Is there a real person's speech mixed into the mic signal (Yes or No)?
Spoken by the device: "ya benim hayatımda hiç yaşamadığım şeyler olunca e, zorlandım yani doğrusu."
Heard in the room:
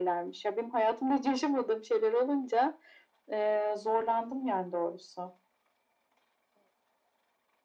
No